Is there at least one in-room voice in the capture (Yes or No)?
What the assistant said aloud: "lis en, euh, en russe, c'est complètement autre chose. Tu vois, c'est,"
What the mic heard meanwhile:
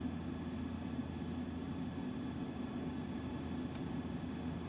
No